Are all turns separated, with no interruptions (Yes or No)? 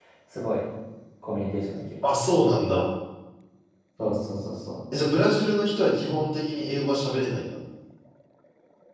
Yes